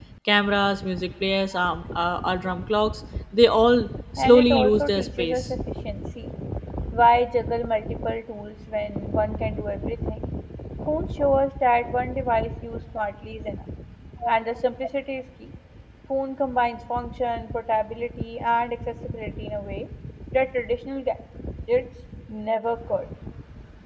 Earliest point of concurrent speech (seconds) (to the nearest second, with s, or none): 4 s